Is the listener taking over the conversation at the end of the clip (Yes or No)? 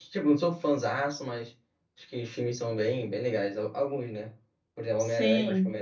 No